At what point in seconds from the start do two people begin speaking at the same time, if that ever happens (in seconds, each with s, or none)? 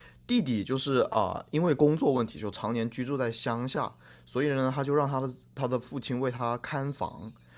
none